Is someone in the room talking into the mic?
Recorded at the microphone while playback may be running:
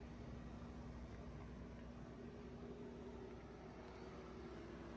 No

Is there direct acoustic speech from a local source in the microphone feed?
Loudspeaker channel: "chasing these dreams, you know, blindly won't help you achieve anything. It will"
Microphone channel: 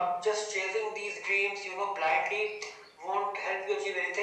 No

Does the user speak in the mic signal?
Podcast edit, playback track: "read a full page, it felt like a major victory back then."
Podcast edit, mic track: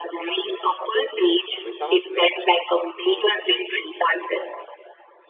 Yes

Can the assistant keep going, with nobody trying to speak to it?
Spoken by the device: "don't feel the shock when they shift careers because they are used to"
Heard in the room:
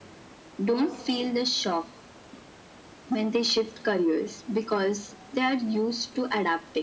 No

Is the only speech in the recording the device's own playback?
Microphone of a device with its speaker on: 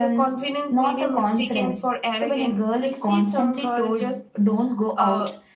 Yes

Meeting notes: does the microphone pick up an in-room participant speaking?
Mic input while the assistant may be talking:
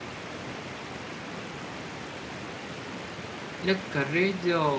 Yes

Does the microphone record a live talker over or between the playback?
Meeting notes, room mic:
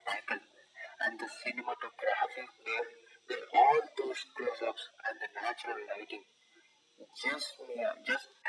No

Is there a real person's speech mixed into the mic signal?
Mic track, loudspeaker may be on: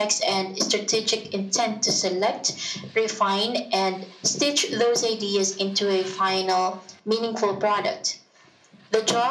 No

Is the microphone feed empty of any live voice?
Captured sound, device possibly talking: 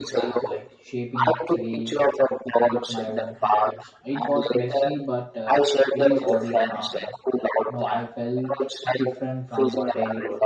No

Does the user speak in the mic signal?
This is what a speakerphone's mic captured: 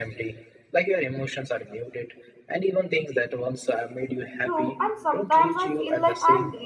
Yes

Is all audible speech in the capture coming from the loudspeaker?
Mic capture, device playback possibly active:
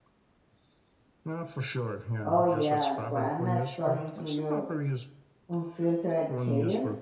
No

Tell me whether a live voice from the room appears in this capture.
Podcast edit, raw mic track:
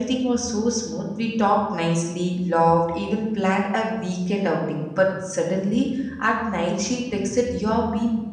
No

